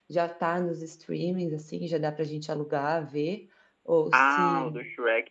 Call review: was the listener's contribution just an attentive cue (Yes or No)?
No